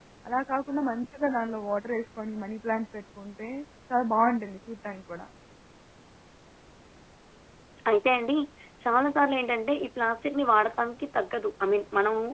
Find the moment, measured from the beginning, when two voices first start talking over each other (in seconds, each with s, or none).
none